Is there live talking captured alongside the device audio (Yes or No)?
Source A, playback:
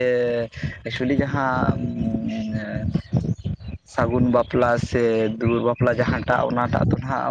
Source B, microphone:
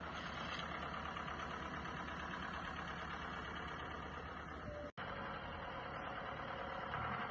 No